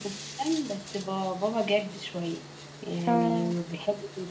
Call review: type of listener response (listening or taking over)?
listening